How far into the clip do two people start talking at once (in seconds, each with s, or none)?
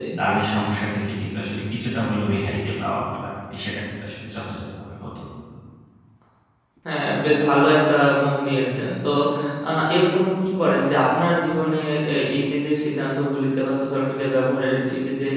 none